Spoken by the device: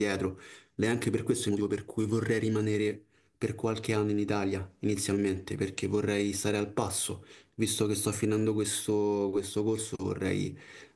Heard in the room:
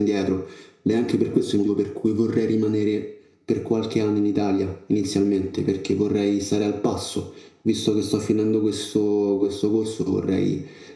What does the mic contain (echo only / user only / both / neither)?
echo only